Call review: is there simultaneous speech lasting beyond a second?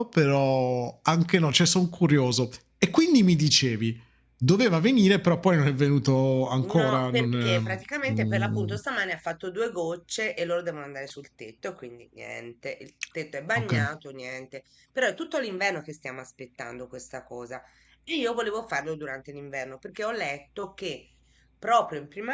Yes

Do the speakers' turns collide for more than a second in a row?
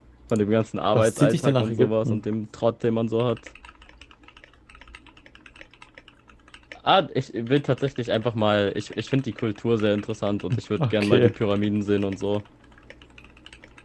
Yes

